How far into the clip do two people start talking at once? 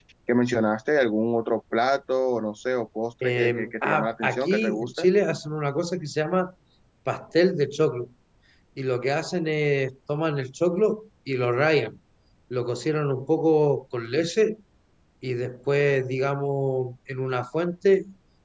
3 s

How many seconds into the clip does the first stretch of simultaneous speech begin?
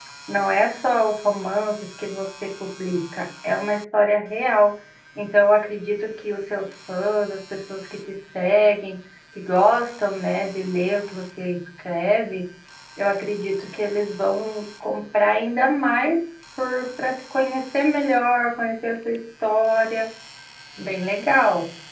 none

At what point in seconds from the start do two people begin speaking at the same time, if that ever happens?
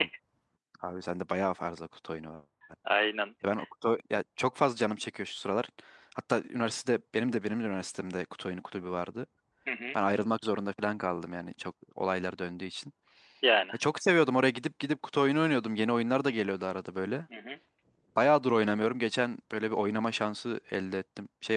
none

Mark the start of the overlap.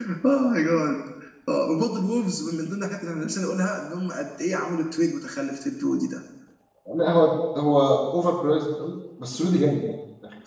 none

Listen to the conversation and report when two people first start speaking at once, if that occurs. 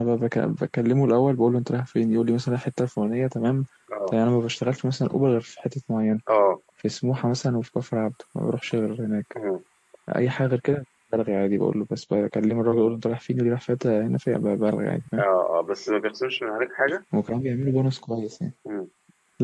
none

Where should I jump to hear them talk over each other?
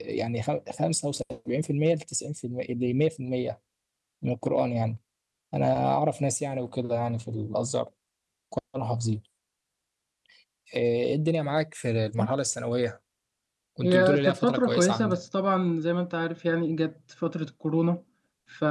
14 s

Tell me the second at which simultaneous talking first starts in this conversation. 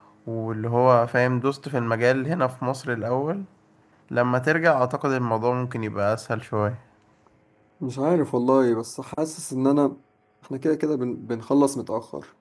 none

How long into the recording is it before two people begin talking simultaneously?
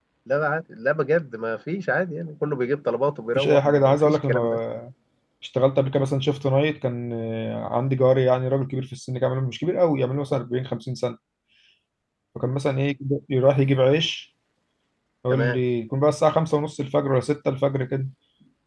3 s

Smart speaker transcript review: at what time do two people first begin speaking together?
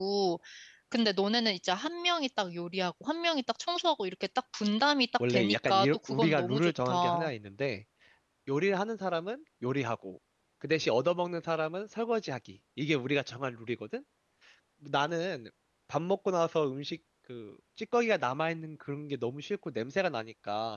5 s

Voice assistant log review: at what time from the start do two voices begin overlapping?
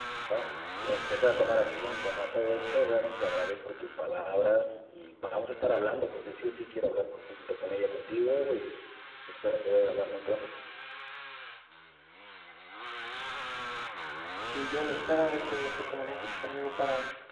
none

